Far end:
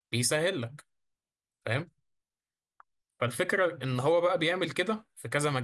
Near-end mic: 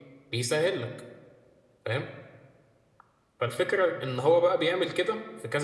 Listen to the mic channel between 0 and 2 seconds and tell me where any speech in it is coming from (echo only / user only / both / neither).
echo only